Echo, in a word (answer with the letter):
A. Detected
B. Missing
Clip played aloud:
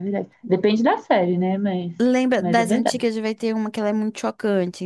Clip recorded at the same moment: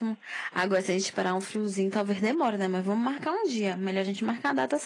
B